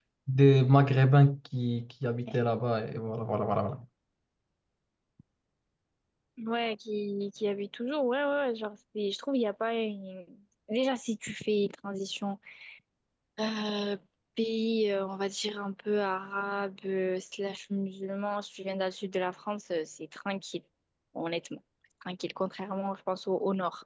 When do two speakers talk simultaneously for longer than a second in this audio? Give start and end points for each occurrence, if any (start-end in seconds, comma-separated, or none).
none